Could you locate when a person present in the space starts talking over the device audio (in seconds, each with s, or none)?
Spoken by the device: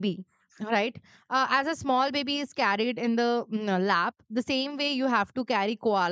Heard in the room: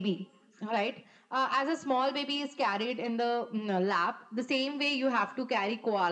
none